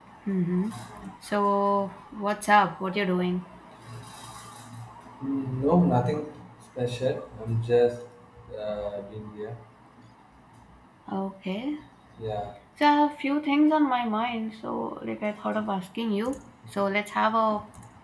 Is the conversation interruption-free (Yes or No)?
Yes